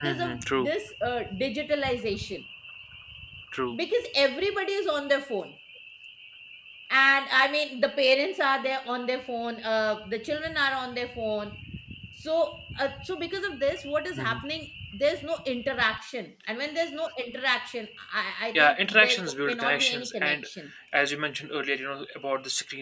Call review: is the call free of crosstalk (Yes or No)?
No